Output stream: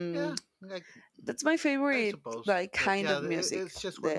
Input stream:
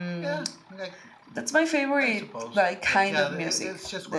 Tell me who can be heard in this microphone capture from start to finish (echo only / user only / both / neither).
echo only